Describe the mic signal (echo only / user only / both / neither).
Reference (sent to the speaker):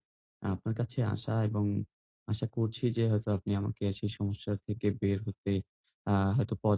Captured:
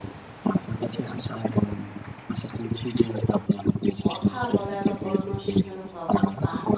both